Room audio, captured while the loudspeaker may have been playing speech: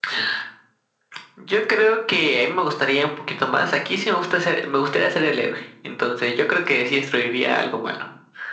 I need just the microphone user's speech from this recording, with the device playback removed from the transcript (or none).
none